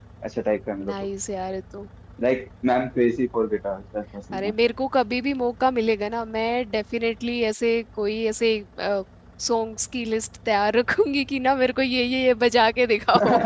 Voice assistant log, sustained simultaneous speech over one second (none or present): none